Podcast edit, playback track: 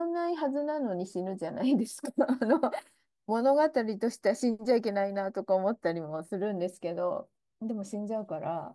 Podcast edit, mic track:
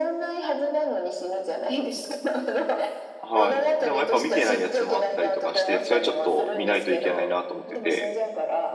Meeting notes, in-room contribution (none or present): present